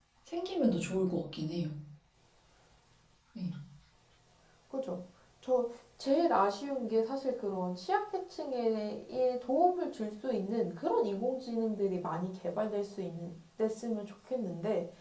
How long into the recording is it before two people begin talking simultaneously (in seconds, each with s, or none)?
none